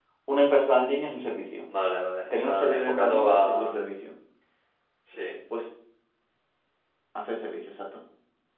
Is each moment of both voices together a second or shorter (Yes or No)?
No